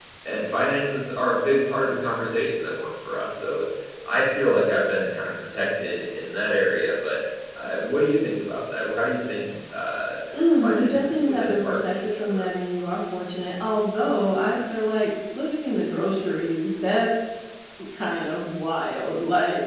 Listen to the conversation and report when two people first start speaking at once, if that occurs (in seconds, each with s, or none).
10.6 s